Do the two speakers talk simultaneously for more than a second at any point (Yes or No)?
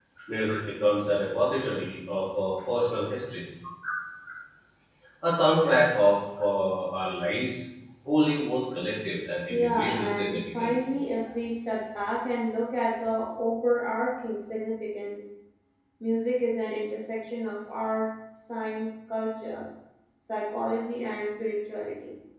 Yes